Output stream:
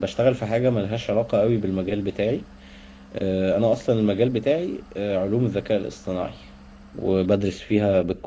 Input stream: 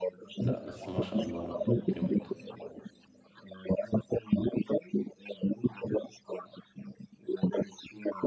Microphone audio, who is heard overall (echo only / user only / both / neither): both